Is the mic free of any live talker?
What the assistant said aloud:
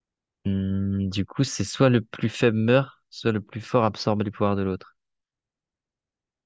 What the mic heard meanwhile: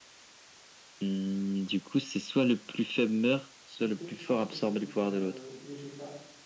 No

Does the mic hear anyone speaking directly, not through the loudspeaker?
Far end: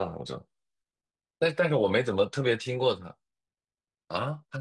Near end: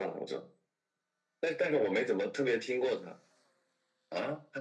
No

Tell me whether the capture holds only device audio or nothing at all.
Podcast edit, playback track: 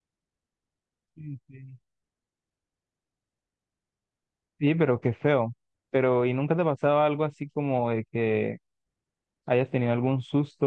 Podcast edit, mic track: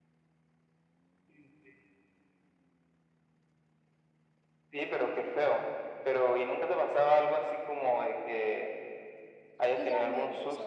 No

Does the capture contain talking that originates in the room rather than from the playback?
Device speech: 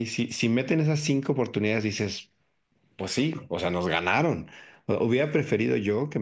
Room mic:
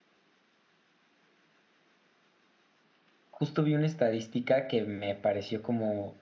Yes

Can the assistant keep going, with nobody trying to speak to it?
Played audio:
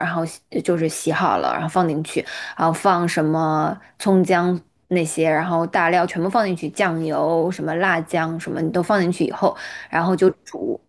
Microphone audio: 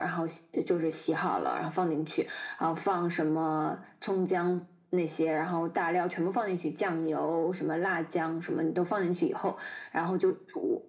Yes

